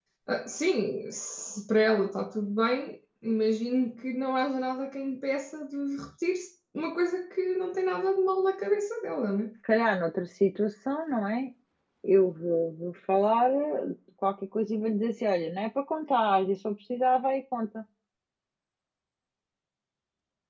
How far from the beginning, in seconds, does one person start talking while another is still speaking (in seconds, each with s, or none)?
none